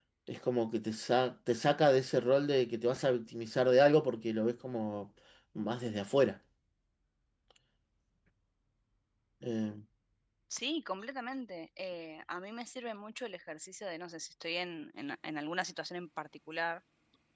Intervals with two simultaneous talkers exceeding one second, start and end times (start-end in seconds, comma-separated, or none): none